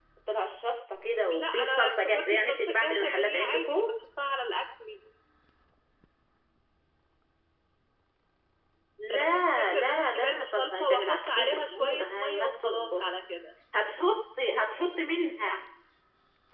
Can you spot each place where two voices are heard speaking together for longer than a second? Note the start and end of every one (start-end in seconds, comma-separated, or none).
1.3-3.8, 9.1-13.0